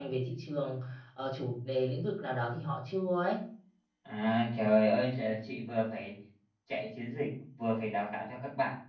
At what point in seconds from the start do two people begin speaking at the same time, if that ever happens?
none

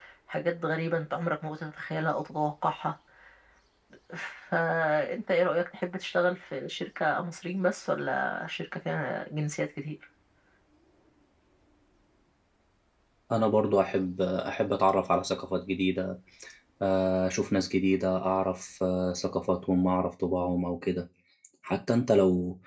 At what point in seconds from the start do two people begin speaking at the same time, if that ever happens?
none

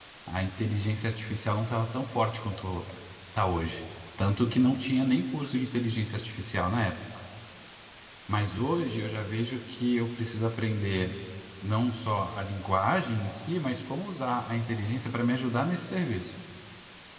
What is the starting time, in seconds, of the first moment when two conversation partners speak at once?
none

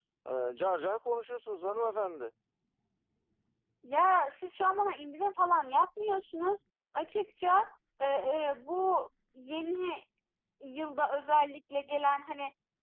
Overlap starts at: none

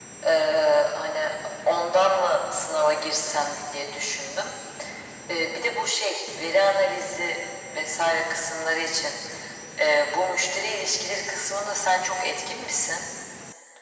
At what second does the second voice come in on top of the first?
none

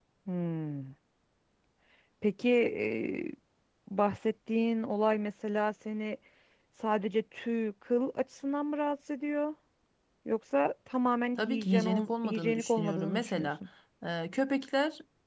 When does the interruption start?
11.4 s

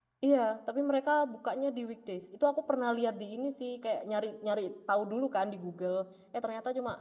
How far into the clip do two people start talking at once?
none

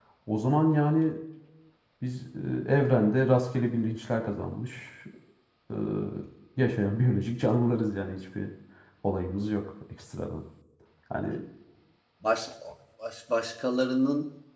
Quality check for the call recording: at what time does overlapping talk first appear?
none

